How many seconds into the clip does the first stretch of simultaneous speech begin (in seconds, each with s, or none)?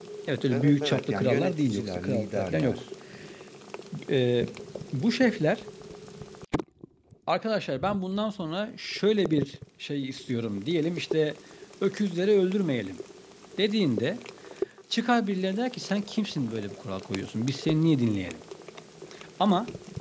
0.5 s